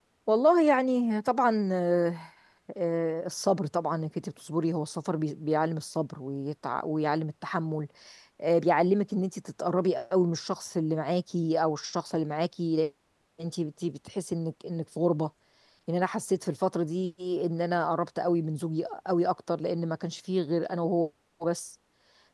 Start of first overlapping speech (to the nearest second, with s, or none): none